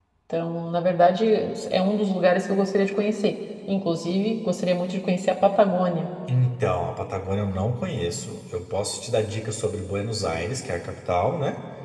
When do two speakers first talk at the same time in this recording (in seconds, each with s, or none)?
none